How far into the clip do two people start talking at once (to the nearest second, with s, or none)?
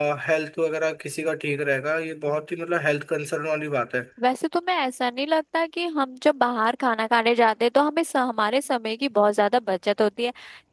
none